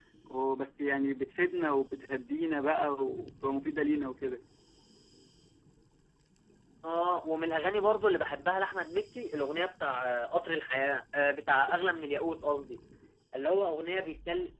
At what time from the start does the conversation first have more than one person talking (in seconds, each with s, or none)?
none